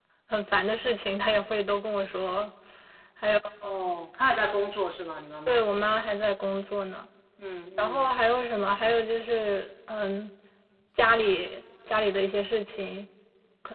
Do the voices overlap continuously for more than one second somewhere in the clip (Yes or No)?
No